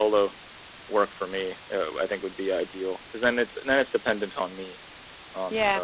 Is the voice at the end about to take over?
Yes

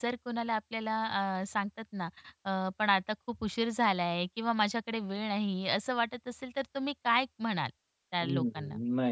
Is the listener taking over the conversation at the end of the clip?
Yes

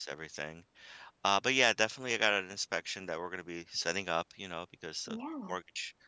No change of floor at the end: Yes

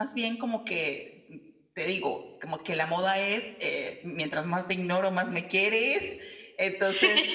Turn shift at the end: No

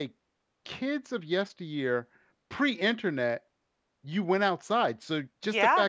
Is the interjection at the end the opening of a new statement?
No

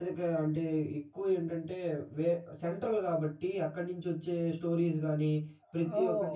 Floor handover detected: No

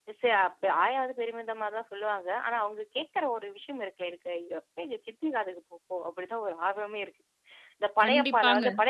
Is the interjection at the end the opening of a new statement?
No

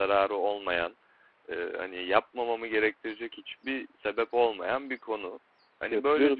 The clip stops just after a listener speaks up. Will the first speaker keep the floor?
No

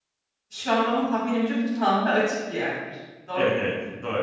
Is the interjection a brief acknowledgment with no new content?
No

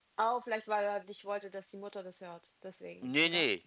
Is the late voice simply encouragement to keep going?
No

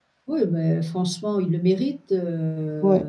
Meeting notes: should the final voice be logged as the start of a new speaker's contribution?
Yes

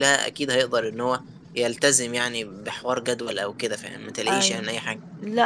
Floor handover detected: Yes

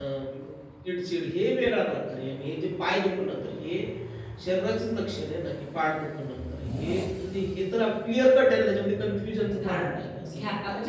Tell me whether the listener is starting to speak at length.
Yes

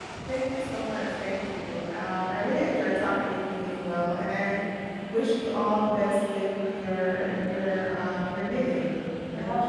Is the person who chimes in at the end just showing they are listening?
No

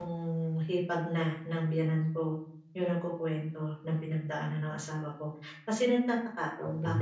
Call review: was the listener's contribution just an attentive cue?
Yes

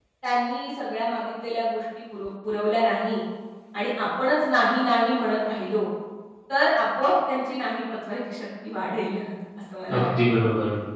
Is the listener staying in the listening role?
No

